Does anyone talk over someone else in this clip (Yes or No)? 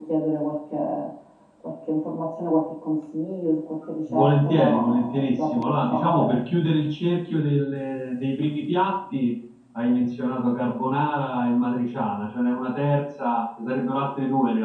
Yes